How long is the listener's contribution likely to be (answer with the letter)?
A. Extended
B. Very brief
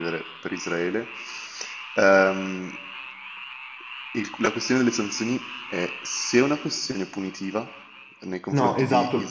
A